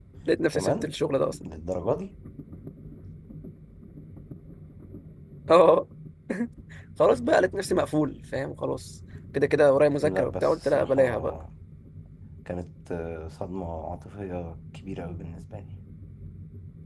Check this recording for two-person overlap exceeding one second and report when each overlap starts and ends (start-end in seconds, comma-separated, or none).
10.0-11.3